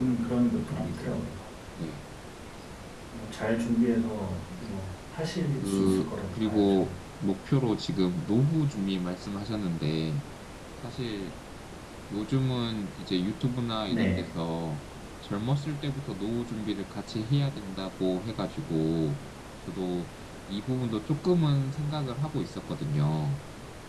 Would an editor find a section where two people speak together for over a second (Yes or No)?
Yes